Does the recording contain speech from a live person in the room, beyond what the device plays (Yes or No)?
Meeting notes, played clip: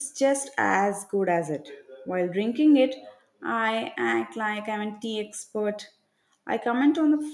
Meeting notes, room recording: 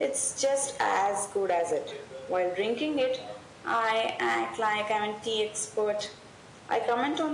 No